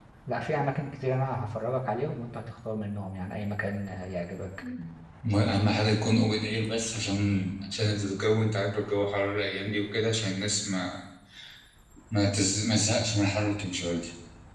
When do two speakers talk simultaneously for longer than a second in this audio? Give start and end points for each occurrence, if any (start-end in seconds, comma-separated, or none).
none